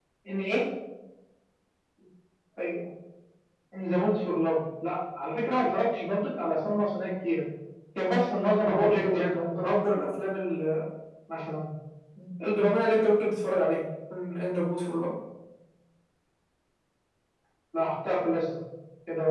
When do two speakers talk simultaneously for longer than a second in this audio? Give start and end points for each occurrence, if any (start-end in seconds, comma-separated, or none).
8.6-9.8